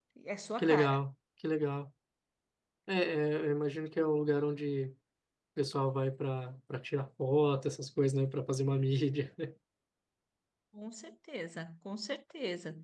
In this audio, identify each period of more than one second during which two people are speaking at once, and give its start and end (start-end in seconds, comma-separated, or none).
none